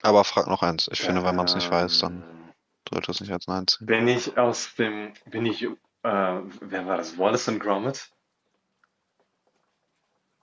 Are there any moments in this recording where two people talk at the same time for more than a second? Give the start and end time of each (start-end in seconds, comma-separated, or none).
1.0-2.2